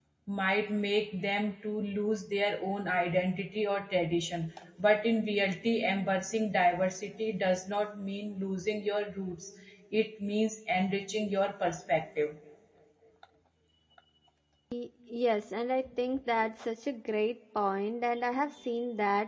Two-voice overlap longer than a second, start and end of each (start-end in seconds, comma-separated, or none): none